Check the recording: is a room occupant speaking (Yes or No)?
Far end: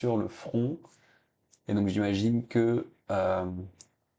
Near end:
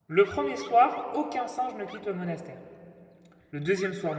Yes